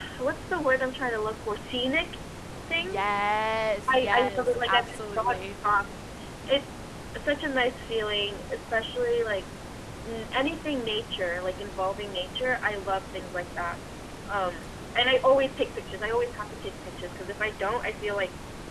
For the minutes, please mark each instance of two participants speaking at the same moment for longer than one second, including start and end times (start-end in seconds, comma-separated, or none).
3.9-5.5